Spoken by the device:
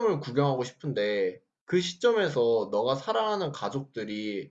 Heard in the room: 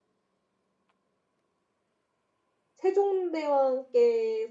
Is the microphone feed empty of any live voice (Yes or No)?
No